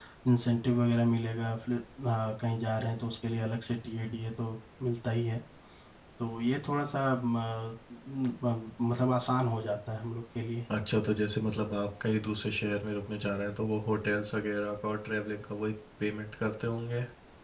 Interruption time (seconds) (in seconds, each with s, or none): none